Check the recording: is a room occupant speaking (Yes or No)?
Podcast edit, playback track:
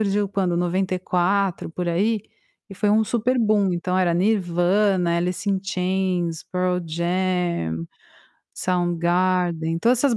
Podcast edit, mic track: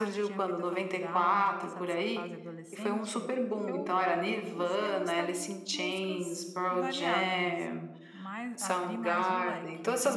Yes